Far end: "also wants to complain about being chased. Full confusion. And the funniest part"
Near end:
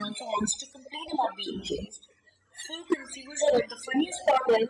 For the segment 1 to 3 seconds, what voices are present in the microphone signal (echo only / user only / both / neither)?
echo only